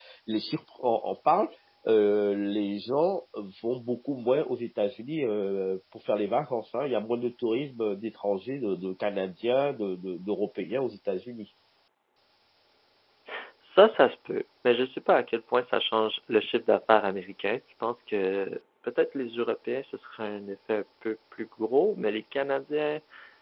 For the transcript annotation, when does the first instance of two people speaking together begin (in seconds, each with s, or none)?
none